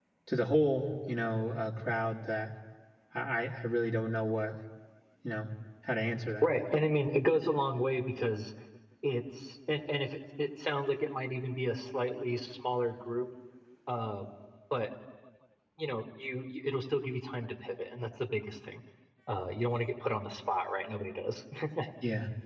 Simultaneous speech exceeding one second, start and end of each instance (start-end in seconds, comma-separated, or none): none